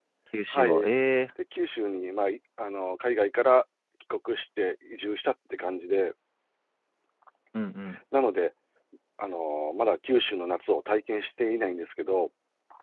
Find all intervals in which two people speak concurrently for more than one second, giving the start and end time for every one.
none

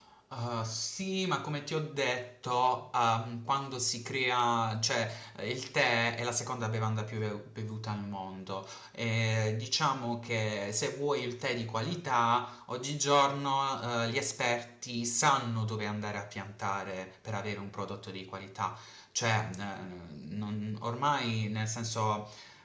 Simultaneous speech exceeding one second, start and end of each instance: none

